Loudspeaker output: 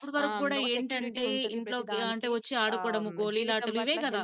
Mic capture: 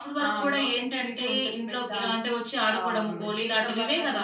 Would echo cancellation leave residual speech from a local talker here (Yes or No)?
No